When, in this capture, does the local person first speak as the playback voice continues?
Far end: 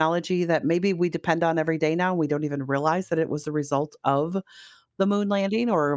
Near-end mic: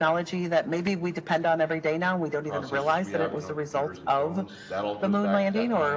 2.5 s

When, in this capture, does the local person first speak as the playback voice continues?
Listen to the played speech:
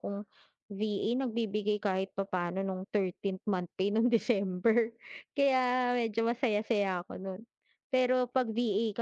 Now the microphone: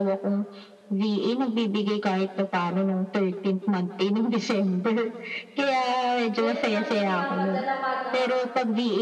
6.4 s

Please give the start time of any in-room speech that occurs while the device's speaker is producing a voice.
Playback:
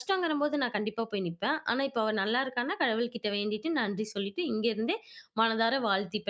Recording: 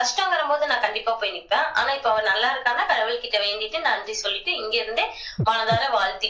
none

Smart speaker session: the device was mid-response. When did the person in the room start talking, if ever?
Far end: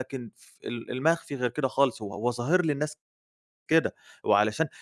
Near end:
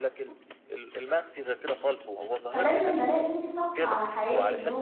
2.5 s

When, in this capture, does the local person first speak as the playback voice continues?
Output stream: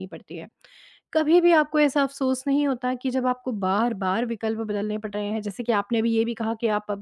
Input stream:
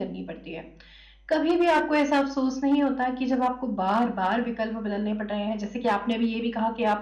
none

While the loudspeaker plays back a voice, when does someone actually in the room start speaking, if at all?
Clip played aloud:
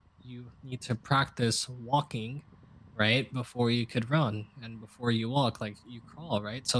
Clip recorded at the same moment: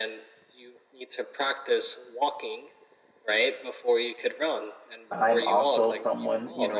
5.1 s

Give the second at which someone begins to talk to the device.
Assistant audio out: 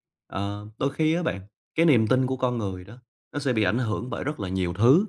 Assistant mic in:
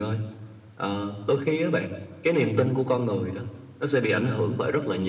none

